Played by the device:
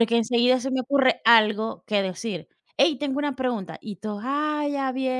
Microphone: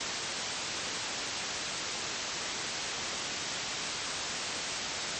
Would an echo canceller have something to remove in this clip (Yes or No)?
No